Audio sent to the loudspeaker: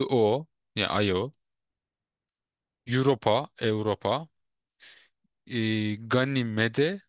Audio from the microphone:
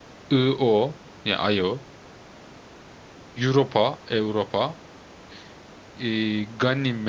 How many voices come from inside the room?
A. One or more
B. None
B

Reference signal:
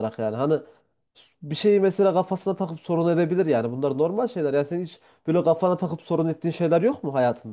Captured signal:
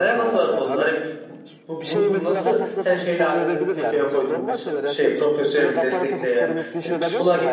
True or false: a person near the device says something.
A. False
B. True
B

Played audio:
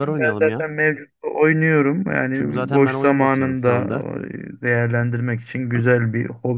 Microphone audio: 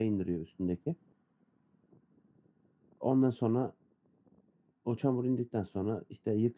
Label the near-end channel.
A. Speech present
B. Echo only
A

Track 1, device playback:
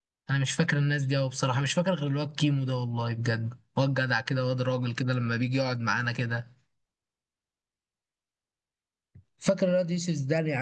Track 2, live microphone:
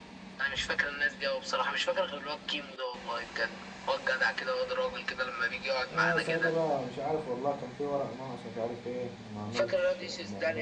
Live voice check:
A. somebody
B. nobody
A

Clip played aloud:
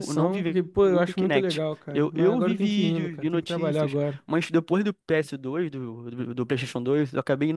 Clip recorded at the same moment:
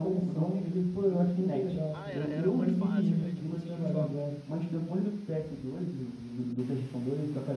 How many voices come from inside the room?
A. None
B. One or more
B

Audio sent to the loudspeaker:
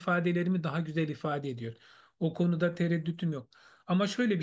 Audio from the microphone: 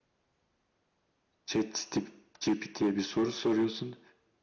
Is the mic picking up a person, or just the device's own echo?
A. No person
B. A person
B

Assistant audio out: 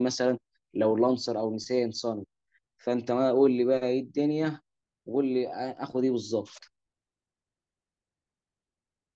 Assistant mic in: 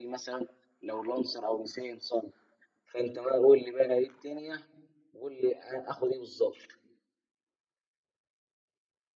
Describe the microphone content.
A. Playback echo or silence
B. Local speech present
A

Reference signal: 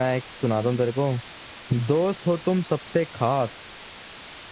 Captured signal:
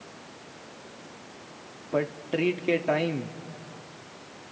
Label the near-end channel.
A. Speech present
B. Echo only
A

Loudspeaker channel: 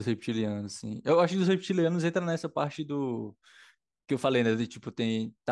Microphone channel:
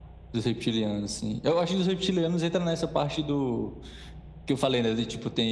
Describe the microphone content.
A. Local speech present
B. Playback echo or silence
B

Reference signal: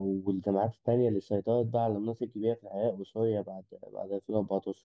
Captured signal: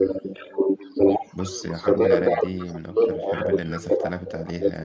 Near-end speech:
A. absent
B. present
B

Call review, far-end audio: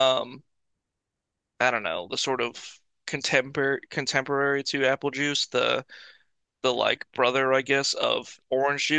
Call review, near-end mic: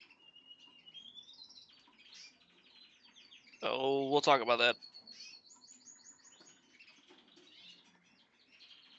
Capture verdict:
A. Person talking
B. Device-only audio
A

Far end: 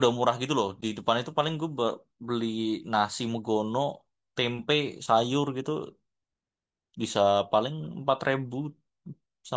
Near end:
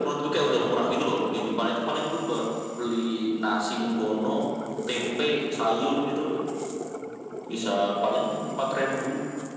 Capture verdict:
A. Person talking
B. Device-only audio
B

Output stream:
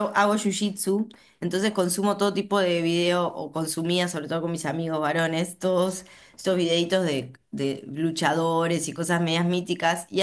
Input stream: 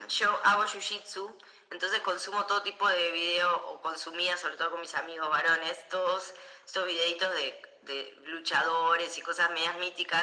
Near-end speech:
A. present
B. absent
B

